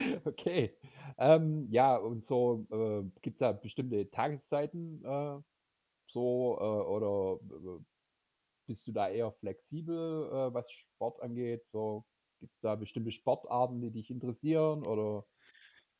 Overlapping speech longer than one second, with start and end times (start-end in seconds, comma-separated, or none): none